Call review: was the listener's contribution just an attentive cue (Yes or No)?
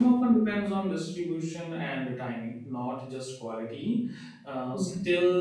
Yes